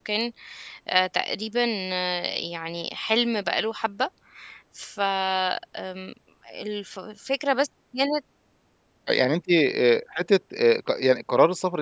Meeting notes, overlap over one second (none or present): none